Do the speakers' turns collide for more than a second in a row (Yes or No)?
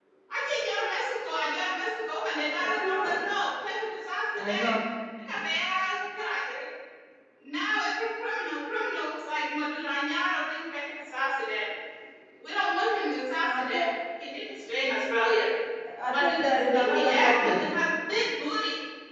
Yes